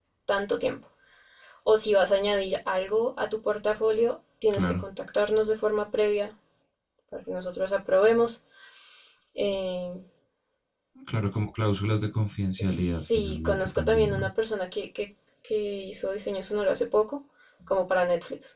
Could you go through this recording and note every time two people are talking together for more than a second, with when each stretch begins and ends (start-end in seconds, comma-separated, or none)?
12.6-14.3